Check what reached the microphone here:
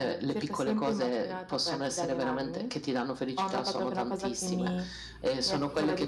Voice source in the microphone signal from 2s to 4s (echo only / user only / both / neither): echo only